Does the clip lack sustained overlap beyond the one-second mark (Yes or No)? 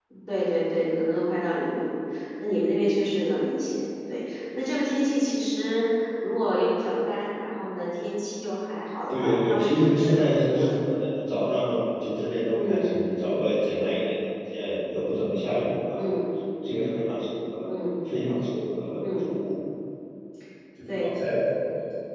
No